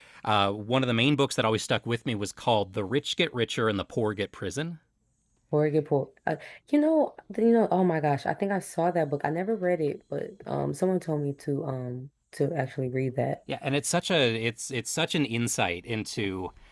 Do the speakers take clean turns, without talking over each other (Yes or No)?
Yes